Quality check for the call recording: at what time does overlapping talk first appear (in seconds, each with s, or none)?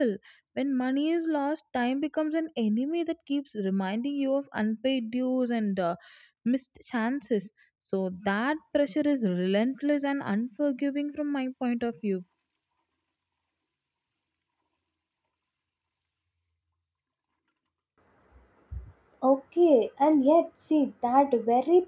none